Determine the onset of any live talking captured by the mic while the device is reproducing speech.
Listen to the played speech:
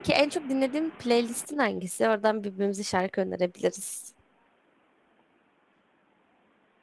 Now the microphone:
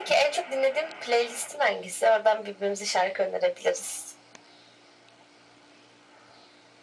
none

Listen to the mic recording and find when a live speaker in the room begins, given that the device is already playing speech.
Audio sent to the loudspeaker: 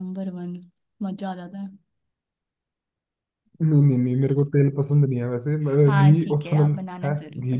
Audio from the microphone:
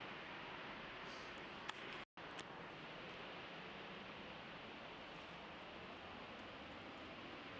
none

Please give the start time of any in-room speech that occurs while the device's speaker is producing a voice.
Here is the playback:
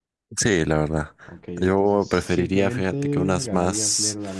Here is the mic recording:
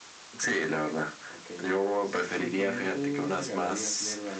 none

